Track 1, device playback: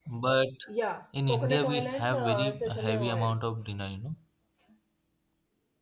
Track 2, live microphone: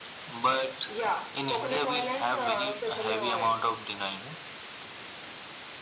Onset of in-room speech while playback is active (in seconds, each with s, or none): none